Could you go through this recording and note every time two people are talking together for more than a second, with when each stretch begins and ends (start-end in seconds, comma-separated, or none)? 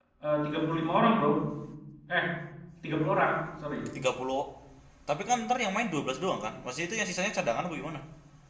none